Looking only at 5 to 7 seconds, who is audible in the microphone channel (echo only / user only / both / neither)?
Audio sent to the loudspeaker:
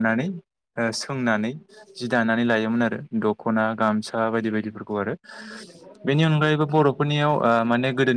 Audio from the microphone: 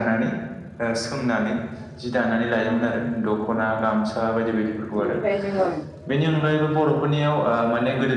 both